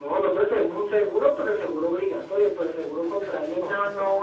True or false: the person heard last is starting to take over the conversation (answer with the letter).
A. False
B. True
B